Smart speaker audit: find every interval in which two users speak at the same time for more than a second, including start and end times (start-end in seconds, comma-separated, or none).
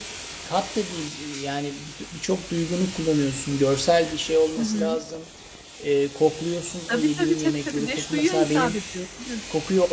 6.9-8.8